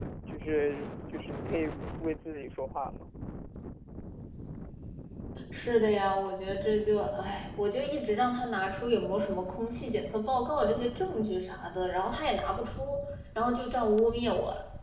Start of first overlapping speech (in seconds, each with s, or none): none